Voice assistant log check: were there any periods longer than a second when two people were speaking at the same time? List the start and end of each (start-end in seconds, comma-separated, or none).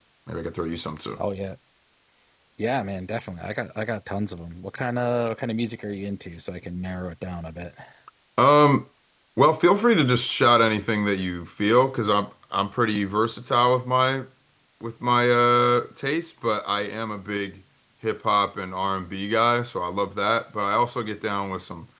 none